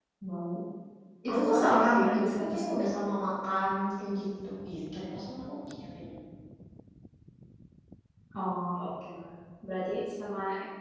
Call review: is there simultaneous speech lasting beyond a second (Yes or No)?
Yes